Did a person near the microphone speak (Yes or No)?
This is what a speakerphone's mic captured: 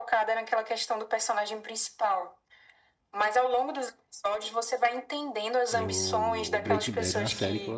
Yes